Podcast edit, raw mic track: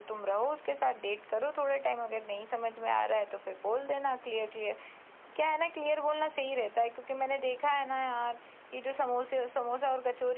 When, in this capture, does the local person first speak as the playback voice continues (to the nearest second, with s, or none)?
none